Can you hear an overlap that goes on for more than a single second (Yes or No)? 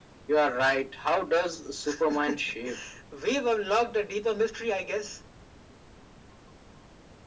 No